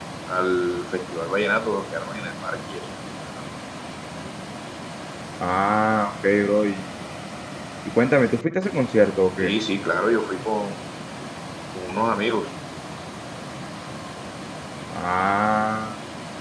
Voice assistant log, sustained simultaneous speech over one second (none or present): none